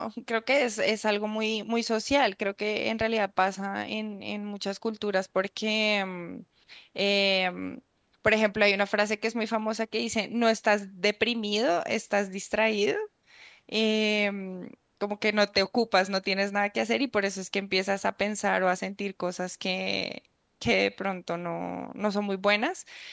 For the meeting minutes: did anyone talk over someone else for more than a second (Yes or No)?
No